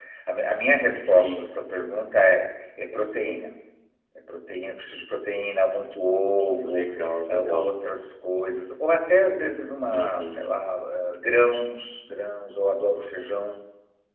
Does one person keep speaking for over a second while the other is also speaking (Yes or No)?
No